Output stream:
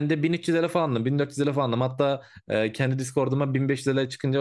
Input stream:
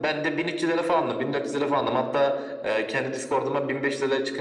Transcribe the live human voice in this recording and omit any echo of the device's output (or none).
none